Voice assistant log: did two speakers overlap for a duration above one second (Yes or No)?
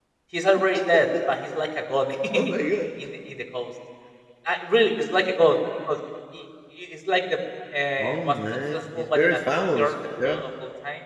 Yes